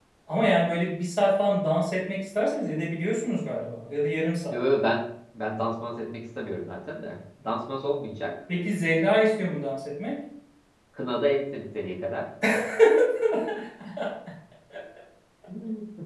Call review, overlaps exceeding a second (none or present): none